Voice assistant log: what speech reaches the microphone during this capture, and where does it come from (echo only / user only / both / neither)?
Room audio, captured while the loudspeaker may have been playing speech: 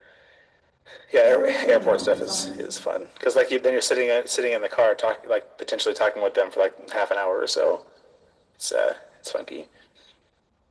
both